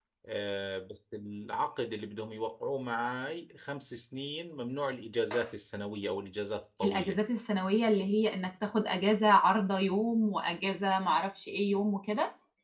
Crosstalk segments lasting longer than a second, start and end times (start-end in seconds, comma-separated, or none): none